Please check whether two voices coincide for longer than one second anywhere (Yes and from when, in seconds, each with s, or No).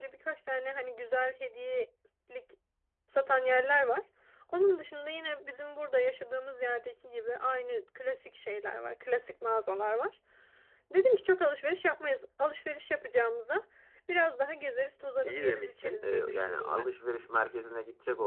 Yes, from 15.2 s